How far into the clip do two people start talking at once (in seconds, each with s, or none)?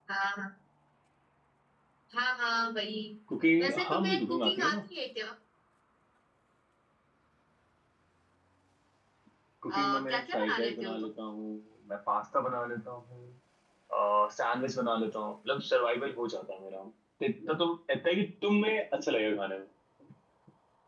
3.6 s